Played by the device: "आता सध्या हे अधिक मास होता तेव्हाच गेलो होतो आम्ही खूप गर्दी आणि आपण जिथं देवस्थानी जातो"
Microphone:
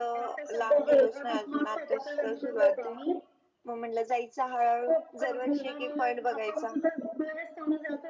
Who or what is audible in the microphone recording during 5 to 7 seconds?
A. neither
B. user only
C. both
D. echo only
C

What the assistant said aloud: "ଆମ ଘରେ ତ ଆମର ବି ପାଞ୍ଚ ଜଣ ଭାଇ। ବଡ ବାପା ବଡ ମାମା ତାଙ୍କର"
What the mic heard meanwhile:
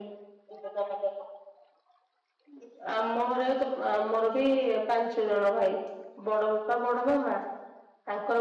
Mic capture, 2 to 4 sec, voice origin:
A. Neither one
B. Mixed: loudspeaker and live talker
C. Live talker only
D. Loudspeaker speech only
D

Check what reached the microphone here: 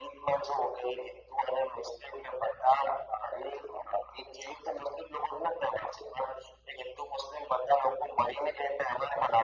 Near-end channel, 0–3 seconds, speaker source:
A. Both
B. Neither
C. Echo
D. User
C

